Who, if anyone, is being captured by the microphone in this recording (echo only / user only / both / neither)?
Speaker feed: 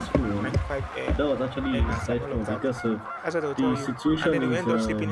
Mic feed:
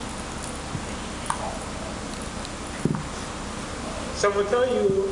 user only